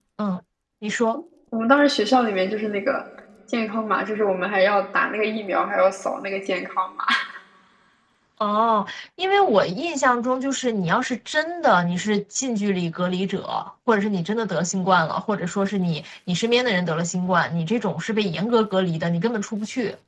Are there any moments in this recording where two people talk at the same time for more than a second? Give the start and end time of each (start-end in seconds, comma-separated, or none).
none